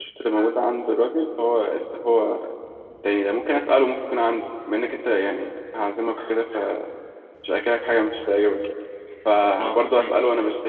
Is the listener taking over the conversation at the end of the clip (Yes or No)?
No